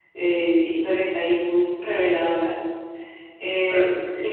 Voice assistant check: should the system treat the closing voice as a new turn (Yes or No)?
No